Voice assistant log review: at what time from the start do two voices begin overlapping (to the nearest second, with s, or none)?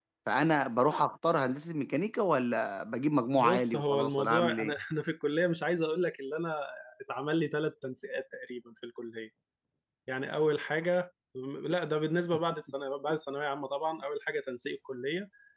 3 s